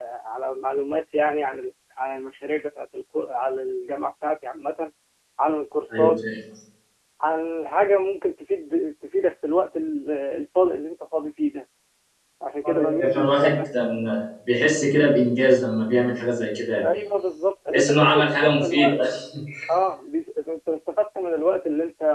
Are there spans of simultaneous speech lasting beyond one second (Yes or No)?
Yes